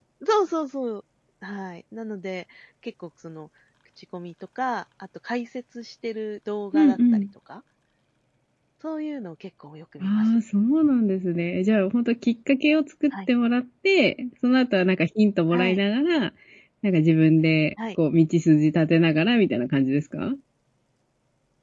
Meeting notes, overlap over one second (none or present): none